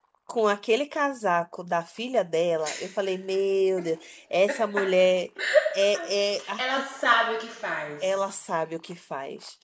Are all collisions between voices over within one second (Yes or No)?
Yes